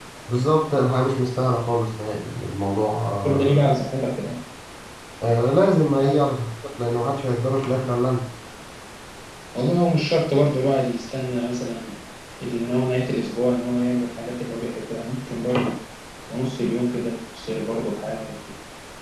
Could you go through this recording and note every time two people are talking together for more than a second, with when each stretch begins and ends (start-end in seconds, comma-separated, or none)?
none